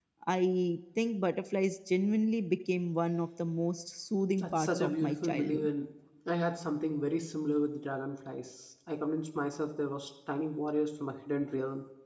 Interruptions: present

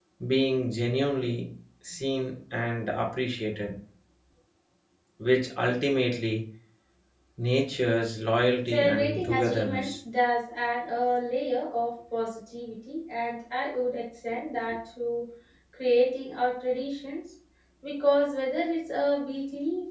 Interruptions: present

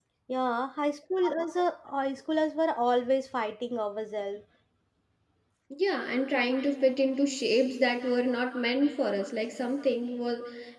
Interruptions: none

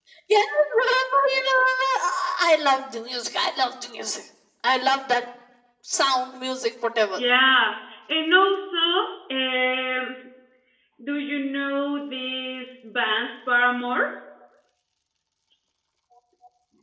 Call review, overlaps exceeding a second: none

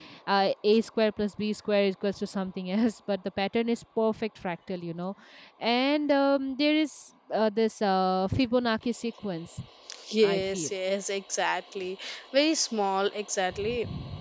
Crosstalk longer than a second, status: none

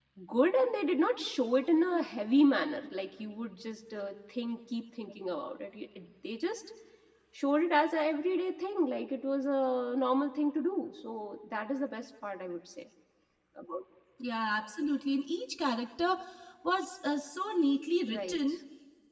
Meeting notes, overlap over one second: none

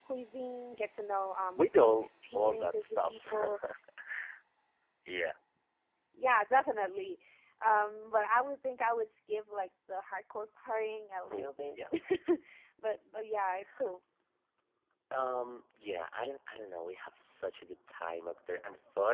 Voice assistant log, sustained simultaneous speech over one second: present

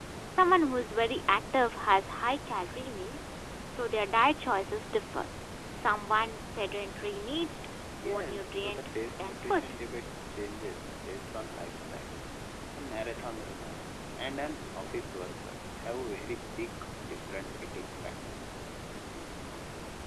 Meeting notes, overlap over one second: present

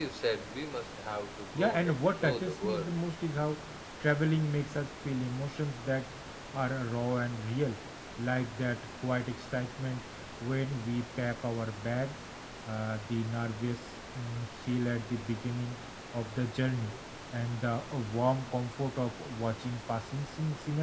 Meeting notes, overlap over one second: present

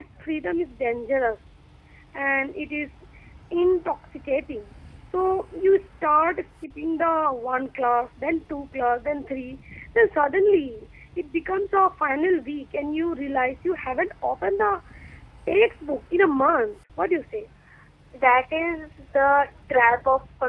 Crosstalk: none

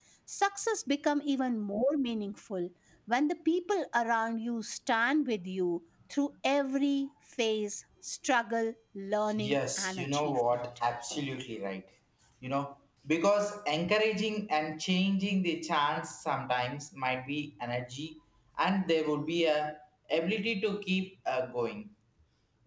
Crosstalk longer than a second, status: present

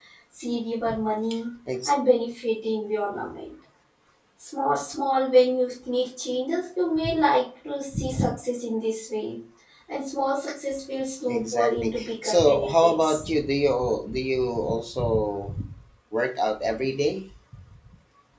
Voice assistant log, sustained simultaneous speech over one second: present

